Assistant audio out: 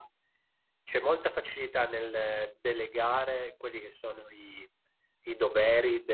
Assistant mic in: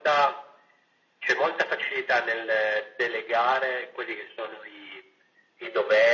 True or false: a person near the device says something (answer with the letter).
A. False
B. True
A